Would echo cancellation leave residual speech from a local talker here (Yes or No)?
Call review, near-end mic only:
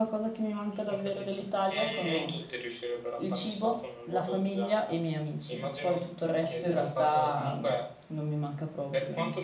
No